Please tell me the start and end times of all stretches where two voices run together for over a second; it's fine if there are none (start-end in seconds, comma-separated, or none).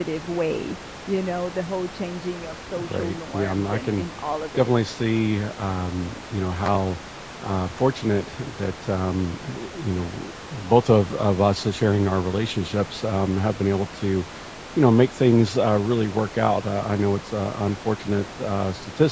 2.7-4.0